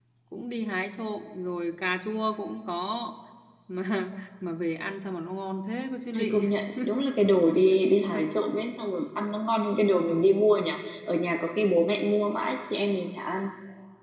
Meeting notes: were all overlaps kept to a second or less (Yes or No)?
Yes